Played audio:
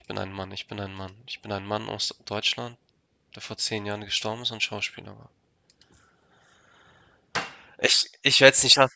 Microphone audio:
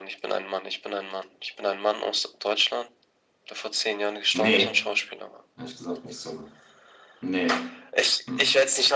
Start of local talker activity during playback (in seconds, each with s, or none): 4.3 s